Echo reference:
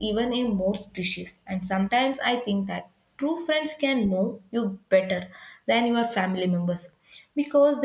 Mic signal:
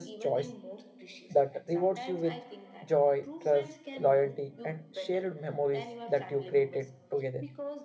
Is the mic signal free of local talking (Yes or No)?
No